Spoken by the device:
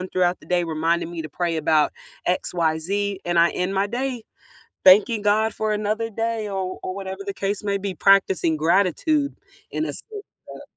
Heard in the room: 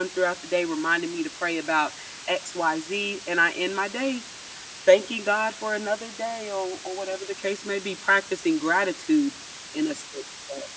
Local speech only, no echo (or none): none